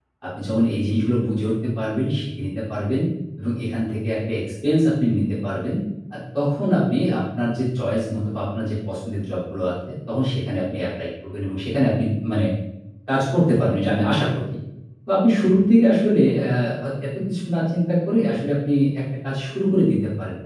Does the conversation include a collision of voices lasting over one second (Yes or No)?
No